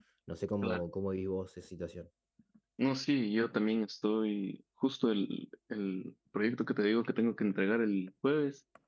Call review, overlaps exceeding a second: none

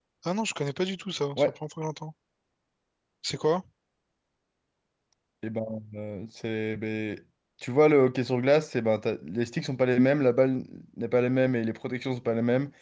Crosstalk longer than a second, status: none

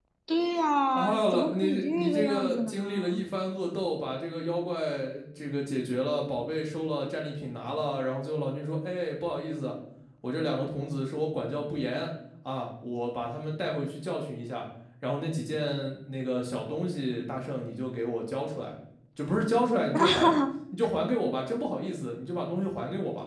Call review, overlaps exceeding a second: present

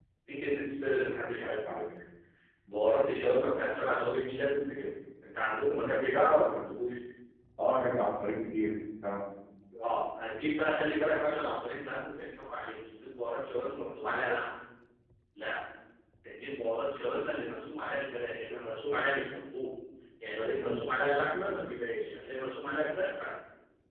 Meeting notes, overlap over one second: none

